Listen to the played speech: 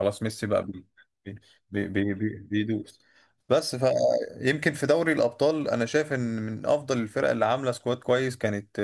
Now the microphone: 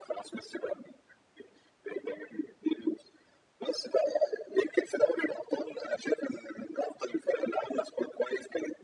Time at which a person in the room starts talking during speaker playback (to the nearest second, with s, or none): none